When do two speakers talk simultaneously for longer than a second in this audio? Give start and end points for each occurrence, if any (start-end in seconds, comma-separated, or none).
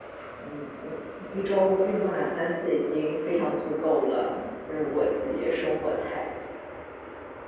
none